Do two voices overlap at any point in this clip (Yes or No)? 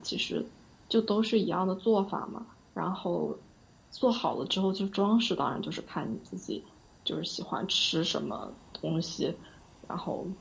No